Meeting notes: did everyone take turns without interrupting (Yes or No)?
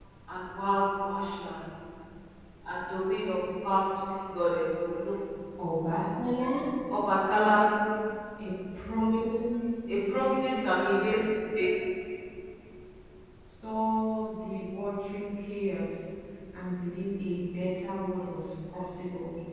No